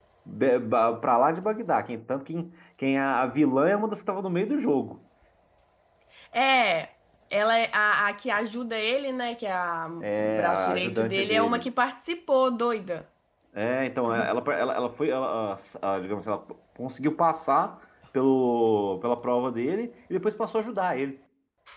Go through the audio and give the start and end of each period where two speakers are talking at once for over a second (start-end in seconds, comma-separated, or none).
10.0-11.7